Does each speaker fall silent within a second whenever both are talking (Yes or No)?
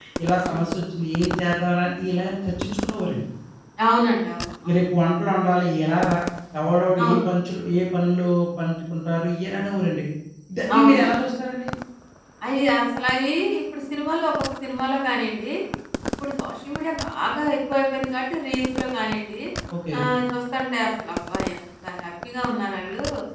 Yes